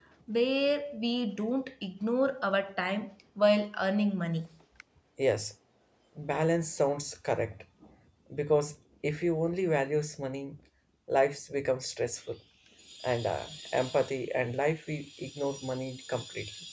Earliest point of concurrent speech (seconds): none

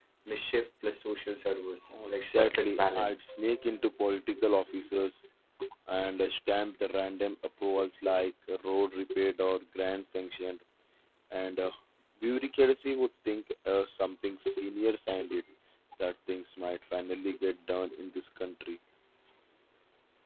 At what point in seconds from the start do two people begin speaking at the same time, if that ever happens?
2 s

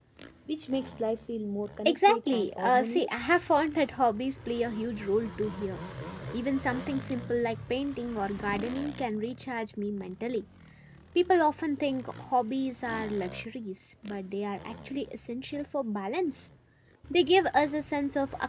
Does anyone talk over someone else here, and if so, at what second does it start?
2 s

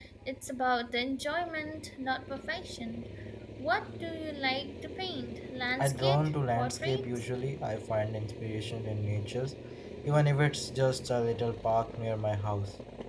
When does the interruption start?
6 s

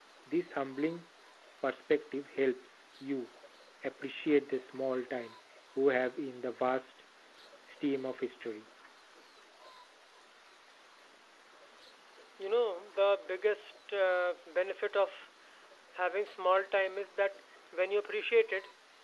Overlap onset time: none

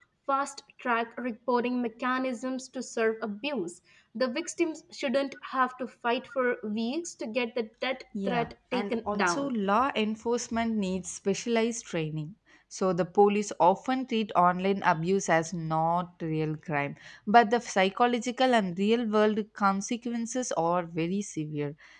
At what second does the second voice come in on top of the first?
8 s

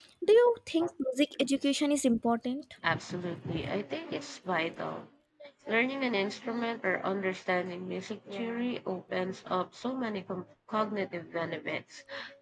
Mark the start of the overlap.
none

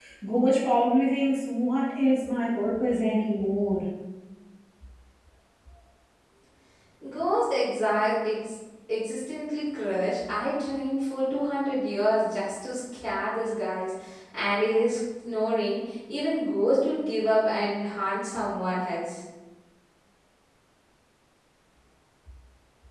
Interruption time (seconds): none

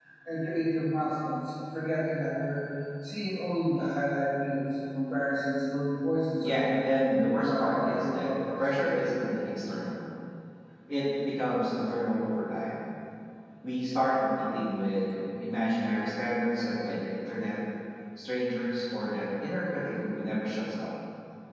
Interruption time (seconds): 6 s

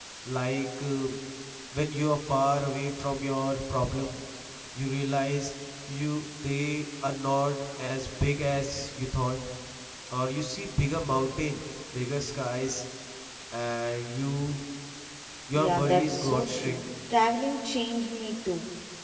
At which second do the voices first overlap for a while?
16 s

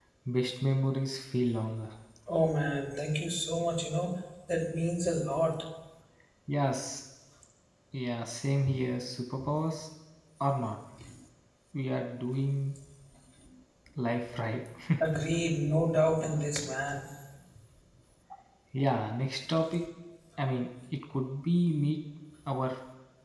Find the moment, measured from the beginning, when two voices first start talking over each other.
none

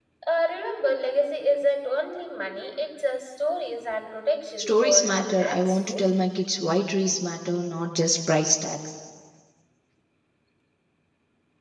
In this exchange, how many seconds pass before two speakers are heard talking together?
5 s

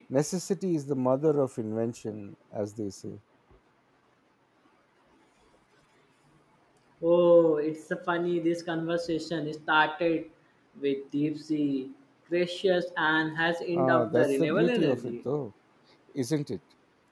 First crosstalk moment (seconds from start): 14 s

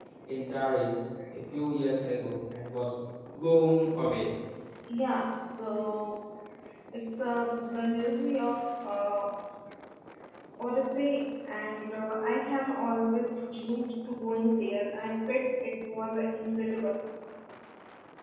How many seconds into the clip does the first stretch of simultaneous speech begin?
none

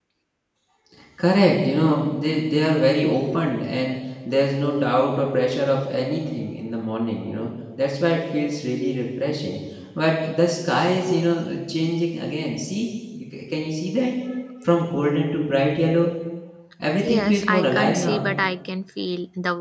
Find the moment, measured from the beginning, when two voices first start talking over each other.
17 s

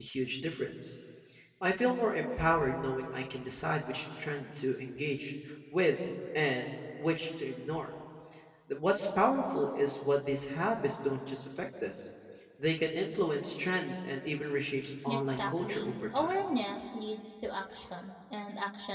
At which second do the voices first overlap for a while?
15 s

